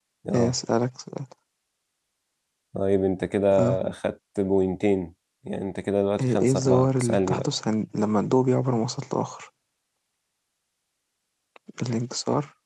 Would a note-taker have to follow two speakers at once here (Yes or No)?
Yes